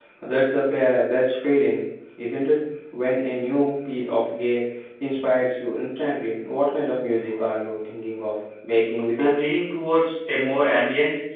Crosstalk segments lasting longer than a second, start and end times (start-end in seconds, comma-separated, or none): none